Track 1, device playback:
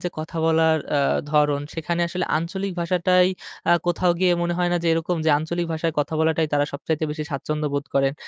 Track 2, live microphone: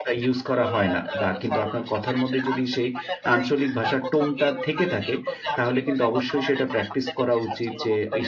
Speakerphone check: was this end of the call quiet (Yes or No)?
No